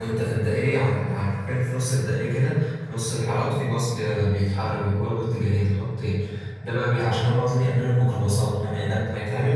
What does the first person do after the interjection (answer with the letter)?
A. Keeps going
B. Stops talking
A